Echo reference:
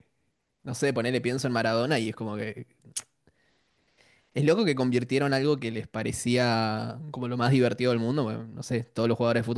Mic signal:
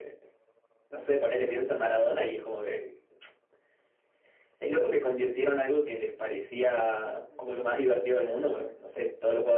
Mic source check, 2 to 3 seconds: echo only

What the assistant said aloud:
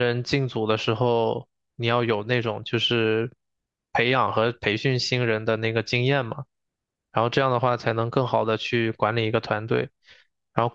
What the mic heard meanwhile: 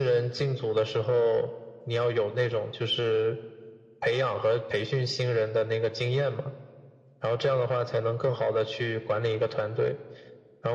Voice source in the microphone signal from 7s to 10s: echo only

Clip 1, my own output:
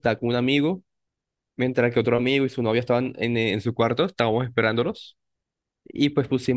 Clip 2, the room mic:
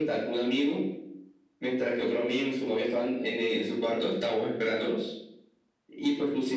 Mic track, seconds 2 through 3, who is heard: echo only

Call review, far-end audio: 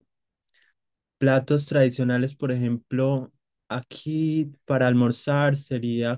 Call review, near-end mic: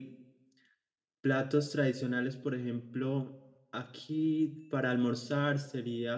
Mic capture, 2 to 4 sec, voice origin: echo only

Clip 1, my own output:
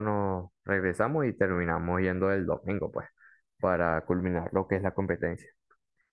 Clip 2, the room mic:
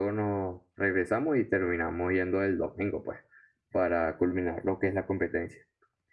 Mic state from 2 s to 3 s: echo only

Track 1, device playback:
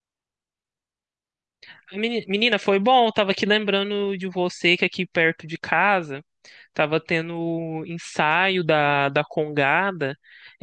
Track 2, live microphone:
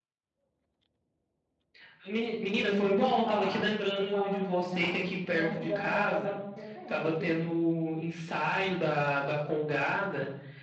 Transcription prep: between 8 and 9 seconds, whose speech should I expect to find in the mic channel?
echo only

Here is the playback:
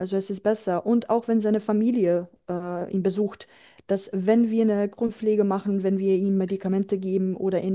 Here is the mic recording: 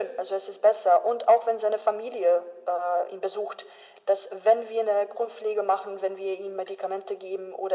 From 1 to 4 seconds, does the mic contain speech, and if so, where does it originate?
echo only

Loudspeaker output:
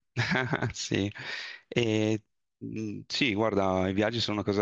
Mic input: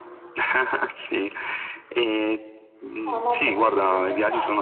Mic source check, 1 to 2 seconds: echo only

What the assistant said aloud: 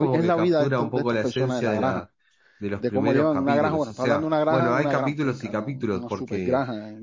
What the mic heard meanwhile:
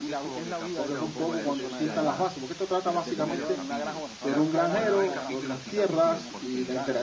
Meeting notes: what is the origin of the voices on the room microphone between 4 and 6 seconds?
both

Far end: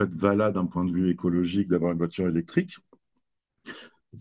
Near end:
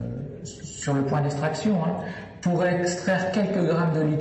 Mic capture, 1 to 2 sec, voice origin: user only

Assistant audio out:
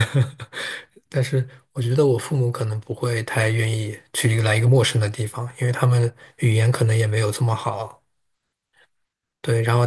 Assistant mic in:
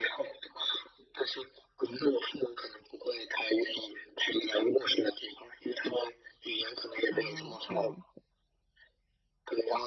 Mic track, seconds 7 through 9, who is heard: both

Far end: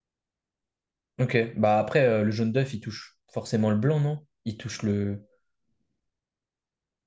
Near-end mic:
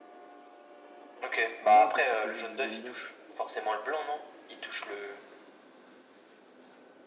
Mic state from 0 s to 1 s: neither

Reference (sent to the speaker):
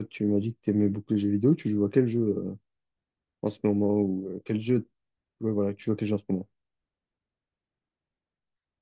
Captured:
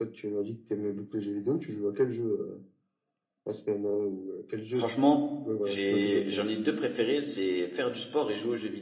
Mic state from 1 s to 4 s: echo only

